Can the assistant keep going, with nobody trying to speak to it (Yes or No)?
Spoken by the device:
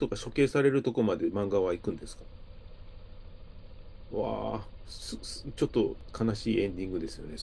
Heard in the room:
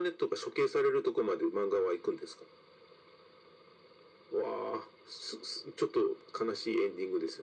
Yes